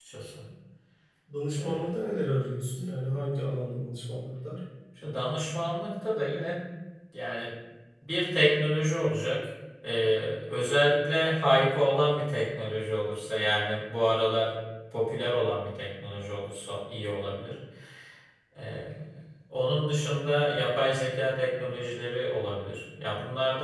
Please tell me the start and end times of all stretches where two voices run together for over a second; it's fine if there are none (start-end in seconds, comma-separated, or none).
none